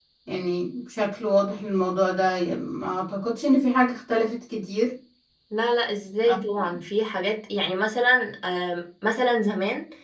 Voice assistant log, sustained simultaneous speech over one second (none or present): none